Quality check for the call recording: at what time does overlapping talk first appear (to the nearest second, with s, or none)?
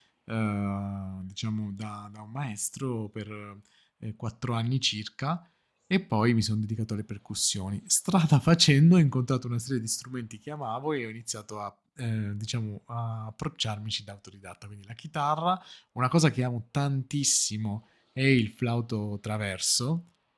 none